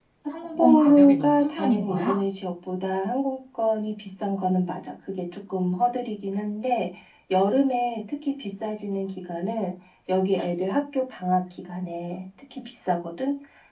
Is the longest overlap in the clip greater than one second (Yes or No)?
Yes